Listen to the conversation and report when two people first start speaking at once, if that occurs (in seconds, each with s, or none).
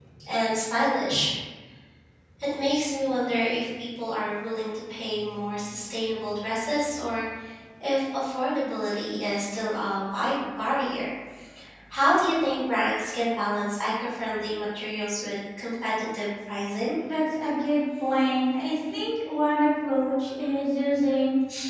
none